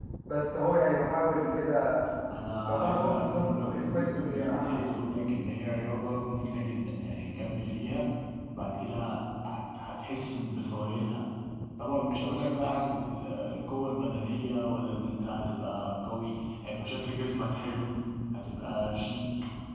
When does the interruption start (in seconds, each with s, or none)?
2.6 s